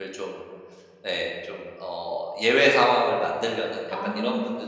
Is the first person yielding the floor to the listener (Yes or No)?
No